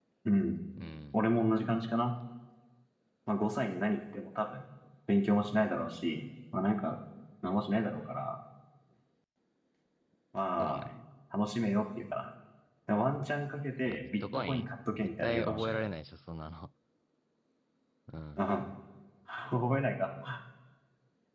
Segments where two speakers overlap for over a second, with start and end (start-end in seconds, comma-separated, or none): 13.8-15.8